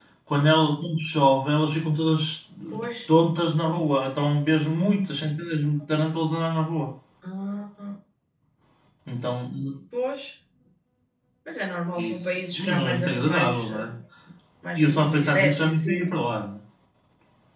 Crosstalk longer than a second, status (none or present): present